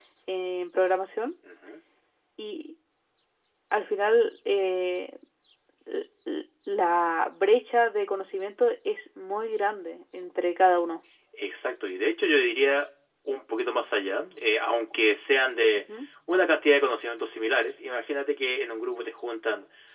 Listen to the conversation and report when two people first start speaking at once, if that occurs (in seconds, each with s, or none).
none